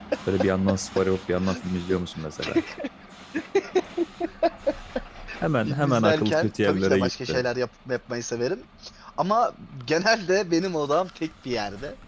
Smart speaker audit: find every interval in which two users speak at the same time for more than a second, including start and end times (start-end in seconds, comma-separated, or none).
5.6-7.4